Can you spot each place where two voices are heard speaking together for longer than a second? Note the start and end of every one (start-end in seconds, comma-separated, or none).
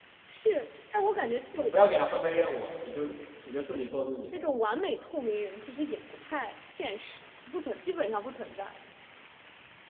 none